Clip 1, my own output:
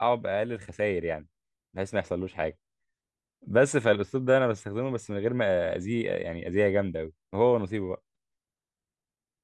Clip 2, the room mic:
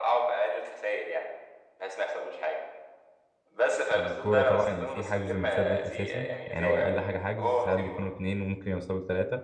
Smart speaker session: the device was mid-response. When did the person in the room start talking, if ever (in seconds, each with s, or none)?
4.0 s